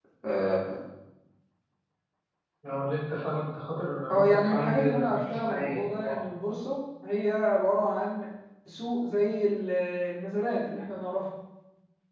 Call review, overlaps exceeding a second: present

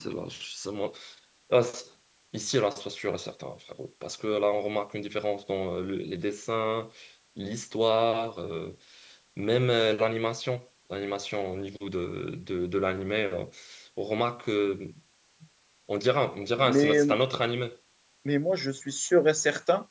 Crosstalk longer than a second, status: none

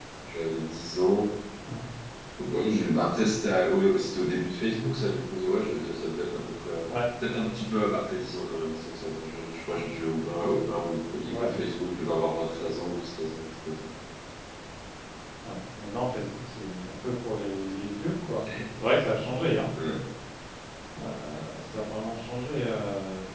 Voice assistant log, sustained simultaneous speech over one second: none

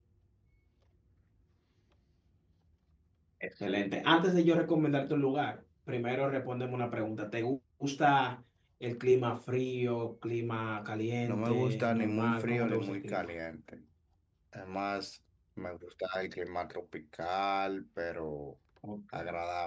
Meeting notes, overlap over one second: present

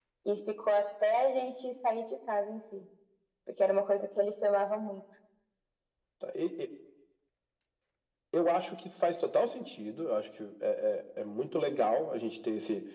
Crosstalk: none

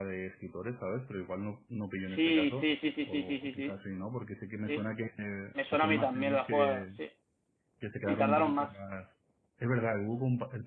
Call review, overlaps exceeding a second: present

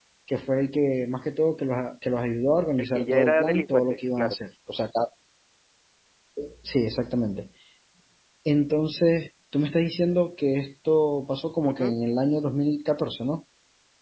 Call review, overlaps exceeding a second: present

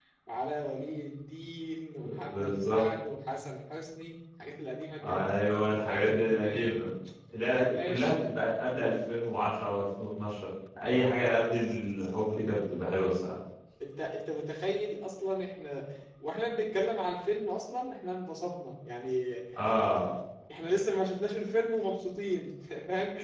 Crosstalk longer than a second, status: present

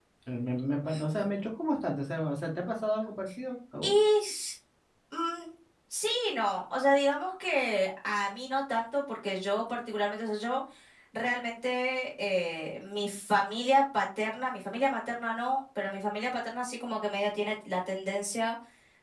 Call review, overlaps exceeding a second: none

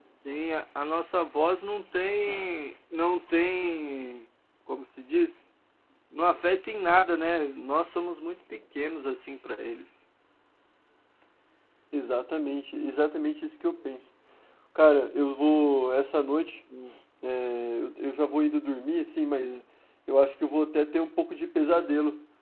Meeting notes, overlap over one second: none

